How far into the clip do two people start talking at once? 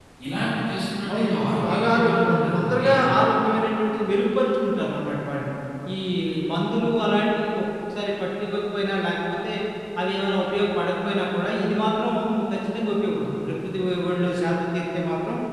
1 s

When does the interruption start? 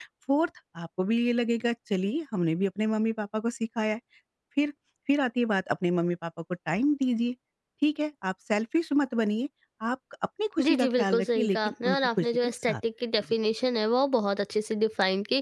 11 s

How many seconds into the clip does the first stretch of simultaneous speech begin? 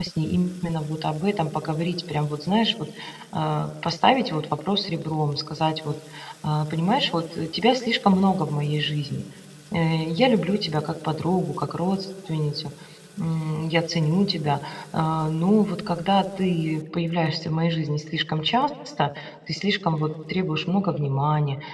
none

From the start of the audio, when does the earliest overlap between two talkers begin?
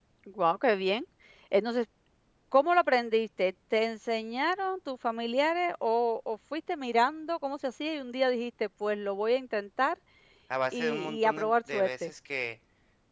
11 s

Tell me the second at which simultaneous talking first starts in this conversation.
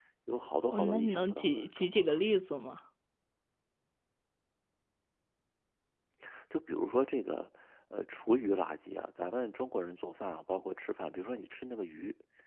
1 s

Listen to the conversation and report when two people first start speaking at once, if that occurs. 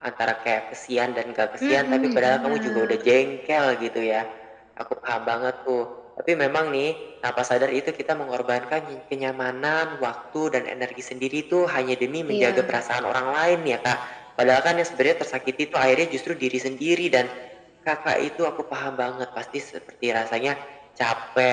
2 s

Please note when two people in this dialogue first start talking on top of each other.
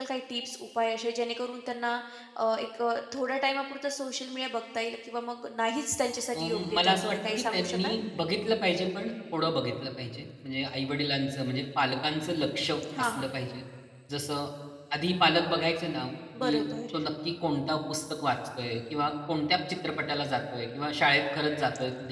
6 s

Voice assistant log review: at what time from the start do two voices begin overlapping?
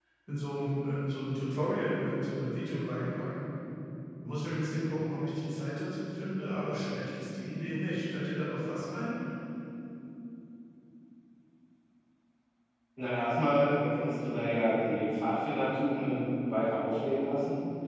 none

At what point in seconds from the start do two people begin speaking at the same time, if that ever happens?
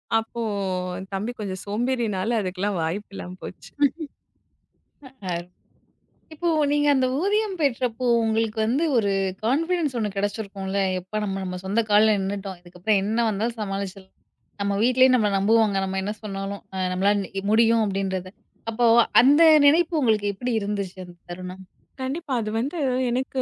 none

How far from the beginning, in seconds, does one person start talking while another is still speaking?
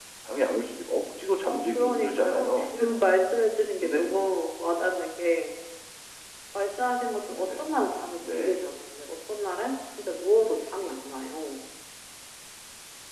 1 s

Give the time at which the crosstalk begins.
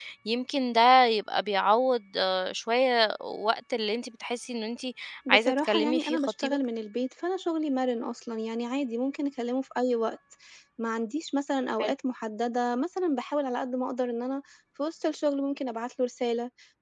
5 s

